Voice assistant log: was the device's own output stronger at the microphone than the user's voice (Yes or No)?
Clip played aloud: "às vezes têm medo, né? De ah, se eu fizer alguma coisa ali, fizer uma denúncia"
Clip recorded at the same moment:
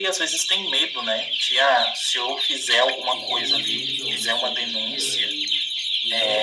Yes